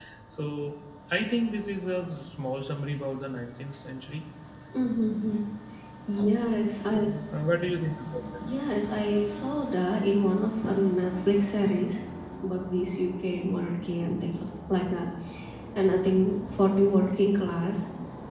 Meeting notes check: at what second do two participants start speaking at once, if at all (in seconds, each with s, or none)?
none